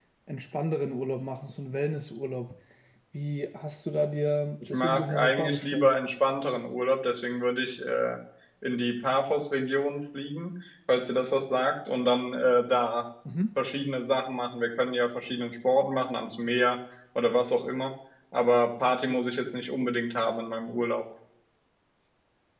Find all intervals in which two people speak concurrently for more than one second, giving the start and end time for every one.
4.7-5.9

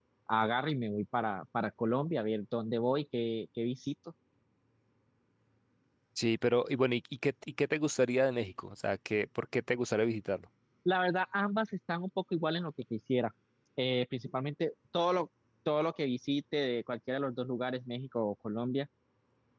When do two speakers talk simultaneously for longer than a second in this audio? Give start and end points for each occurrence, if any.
none

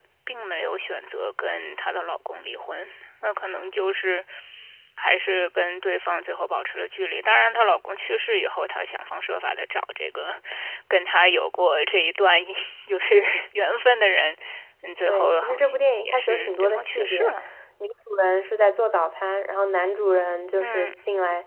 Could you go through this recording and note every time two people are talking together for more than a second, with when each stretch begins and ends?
15.0-17.3

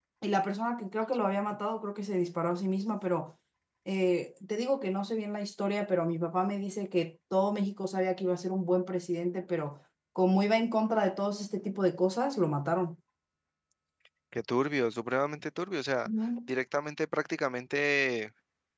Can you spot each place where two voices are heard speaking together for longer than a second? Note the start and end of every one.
none

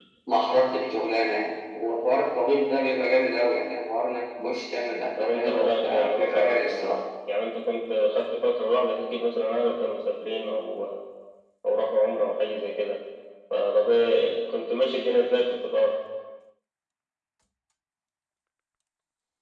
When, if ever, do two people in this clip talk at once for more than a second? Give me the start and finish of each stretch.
5.2-7.0

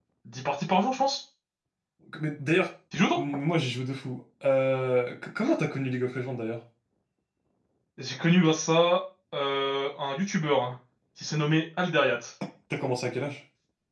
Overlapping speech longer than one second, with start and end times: none

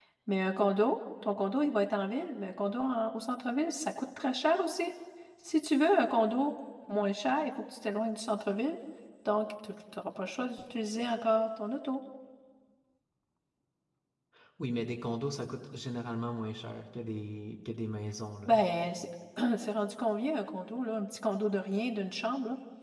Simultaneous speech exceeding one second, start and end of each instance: none

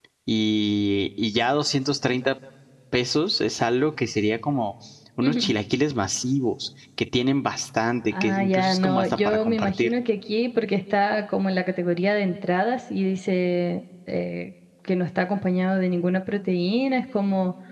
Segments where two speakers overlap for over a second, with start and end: 8.2-9.9

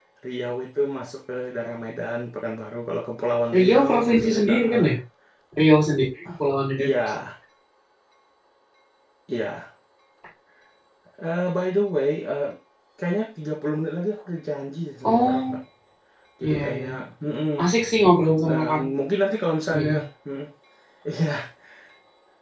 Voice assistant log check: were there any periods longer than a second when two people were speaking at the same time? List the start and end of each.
3.6-4.9

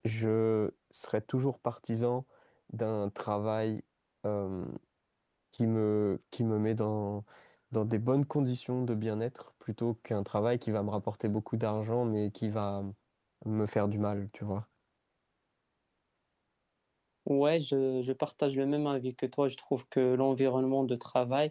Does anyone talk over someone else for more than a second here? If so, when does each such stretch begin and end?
none

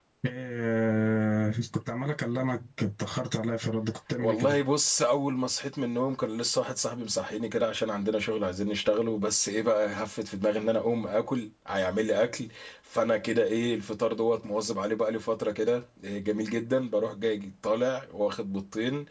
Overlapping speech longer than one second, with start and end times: none

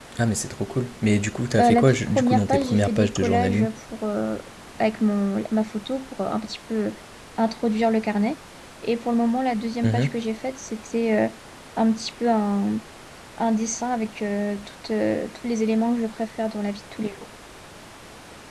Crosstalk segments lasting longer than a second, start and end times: 1.6-3.7

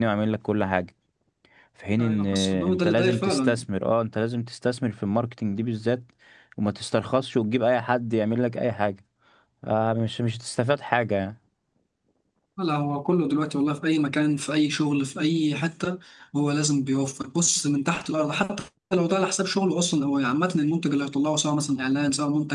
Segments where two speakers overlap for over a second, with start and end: 2.0-3.6

